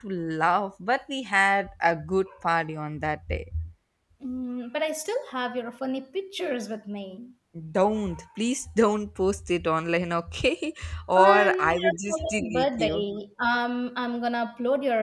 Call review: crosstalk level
present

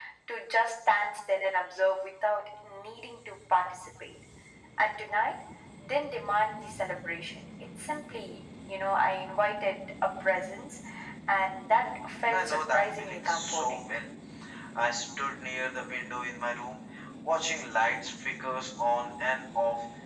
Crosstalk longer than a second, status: present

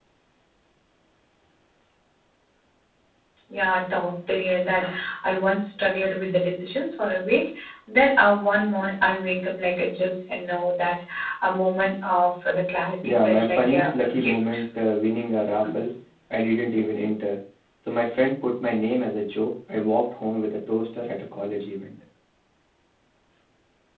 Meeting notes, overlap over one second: present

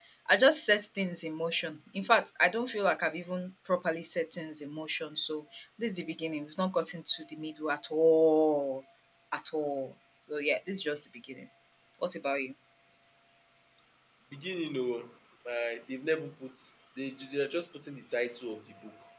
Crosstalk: none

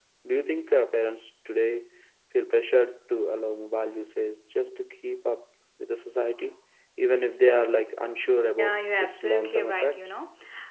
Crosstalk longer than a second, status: present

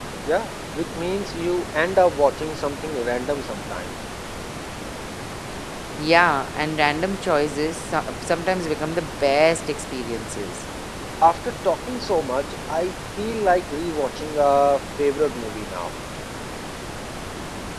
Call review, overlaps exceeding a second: none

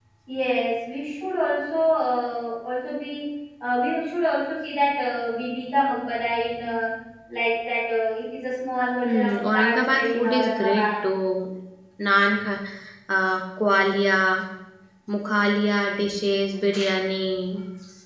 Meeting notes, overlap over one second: present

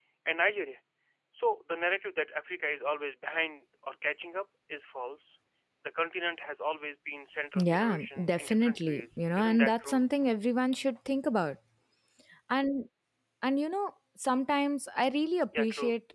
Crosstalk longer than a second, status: present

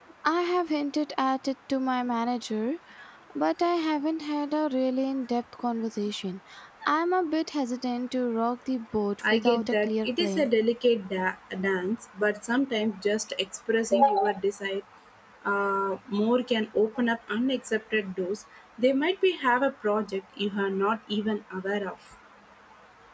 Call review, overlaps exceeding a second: present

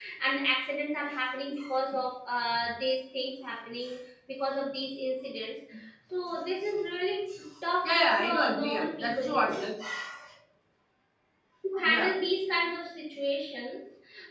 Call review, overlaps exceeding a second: present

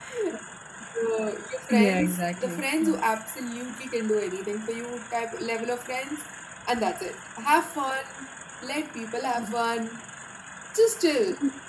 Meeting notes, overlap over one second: present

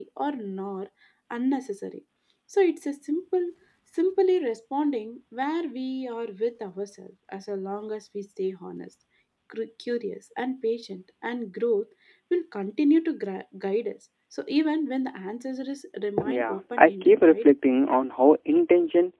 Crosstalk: present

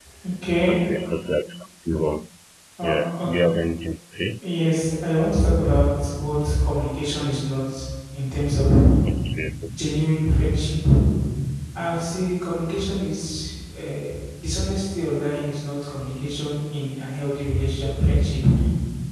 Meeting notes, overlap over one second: none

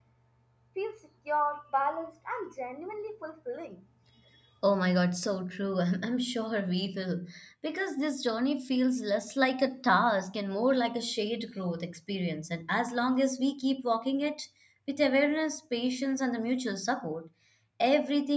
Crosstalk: none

